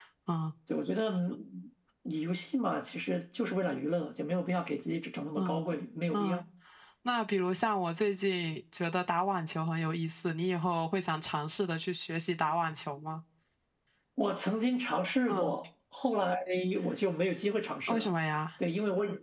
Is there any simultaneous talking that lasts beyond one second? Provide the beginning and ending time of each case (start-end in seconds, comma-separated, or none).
none